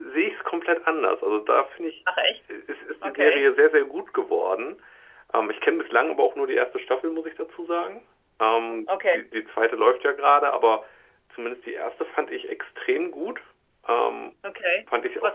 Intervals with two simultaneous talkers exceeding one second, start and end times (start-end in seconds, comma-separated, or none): none